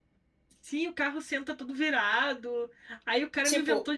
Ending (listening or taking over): listening